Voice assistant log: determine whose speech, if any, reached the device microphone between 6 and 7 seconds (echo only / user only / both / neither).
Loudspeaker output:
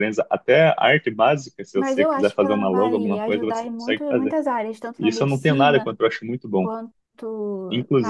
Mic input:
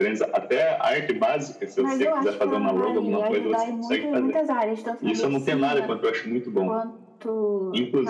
echo only